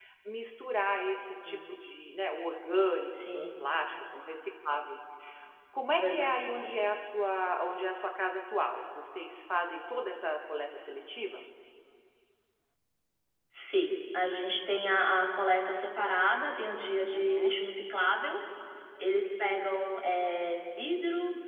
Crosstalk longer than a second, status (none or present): none